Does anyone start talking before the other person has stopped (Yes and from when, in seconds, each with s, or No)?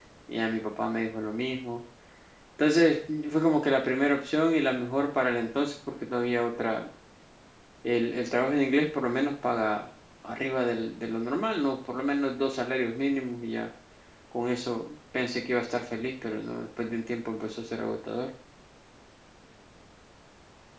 No